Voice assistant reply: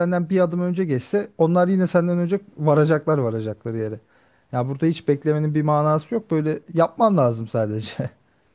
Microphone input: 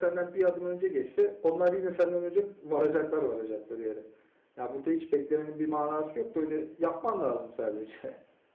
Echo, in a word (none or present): present